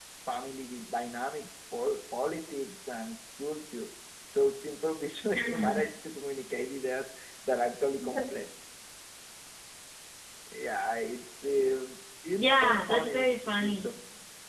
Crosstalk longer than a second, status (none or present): present